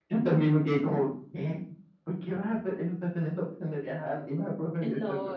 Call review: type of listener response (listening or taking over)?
taking over